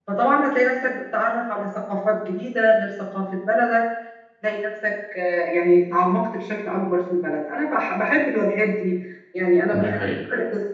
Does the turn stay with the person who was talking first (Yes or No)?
Yes